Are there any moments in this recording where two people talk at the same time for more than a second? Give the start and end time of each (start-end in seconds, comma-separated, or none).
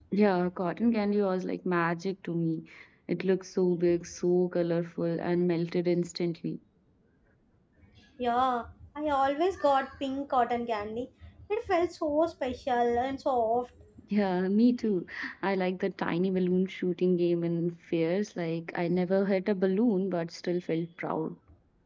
none